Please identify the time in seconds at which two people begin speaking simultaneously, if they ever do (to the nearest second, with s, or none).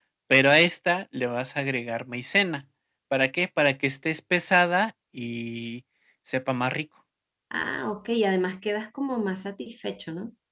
none